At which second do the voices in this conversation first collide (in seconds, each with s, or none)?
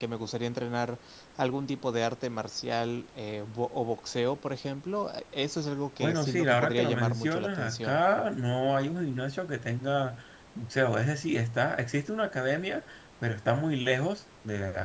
6.0 s